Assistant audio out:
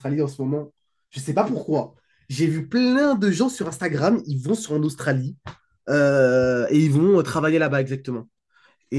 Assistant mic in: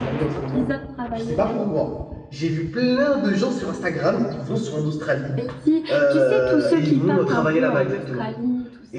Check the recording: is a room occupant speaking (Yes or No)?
Yes